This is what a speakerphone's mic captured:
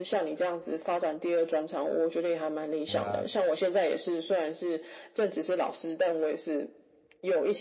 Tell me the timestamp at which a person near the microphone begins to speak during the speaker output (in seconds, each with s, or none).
2.9 s